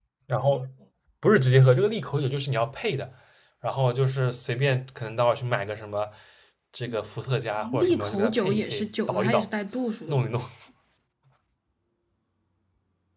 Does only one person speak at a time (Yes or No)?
No